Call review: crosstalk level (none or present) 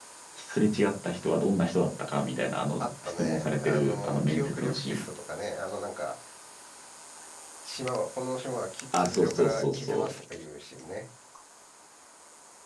present